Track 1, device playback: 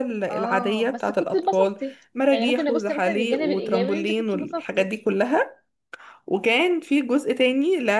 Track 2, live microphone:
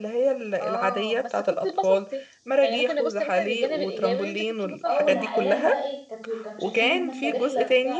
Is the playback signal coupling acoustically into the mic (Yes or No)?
Yes